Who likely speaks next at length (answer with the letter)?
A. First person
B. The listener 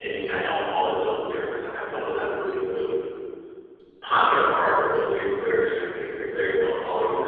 A